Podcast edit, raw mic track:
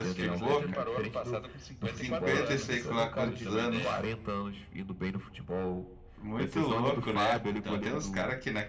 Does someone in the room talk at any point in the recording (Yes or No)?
Yes